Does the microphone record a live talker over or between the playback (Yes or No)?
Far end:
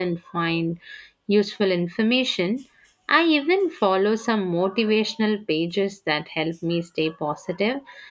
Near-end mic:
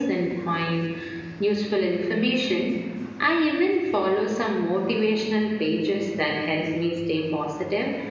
No